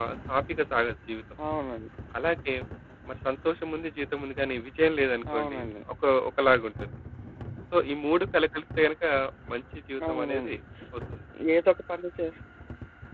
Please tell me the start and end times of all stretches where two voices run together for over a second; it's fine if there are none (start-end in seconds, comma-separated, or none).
none